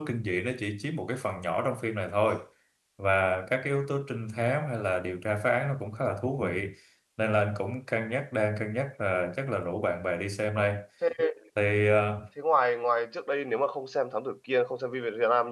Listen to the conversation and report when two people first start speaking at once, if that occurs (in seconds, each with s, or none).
none